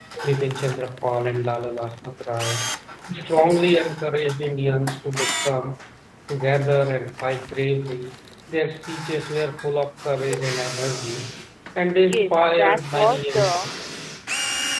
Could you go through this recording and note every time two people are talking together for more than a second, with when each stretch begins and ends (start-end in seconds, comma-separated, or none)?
12.0-13.7